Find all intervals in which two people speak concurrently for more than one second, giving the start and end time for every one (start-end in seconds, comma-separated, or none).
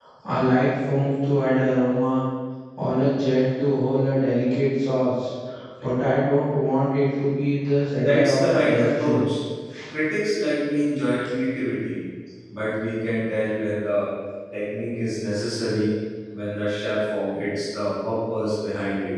7.9-9.2